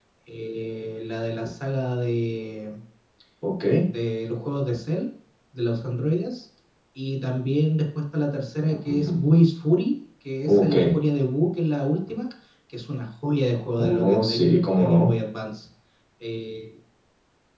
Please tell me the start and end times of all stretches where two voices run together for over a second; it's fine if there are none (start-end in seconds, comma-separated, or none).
13.8-15.1